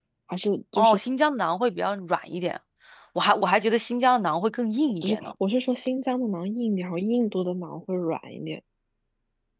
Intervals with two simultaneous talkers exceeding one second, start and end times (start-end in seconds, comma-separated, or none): none